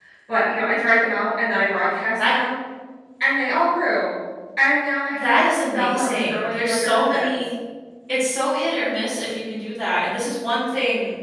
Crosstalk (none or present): present